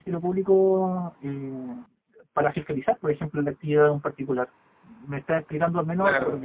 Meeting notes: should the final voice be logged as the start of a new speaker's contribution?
Yes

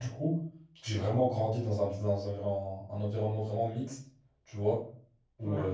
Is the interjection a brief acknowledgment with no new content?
Yes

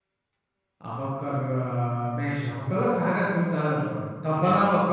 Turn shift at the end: No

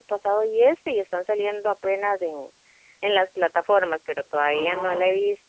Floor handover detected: No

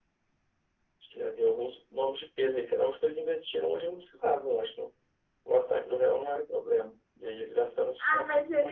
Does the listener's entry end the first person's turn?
Yes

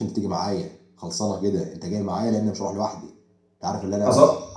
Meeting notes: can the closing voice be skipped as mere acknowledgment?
Yes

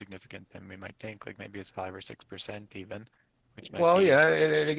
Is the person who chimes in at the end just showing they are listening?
No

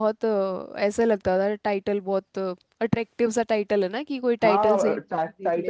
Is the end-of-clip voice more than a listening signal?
Yes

